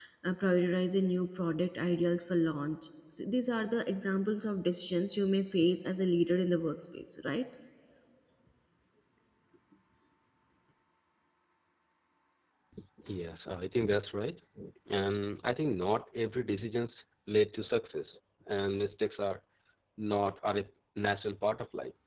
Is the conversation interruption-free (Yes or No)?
Yes